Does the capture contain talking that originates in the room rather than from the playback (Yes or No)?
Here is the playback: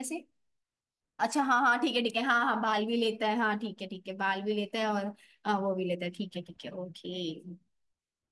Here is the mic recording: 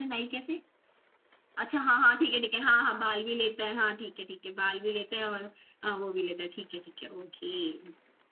No